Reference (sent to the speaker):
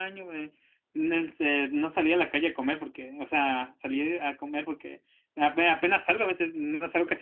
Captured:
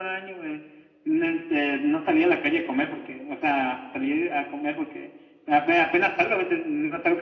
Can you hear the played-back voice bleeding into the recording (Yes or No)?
Yes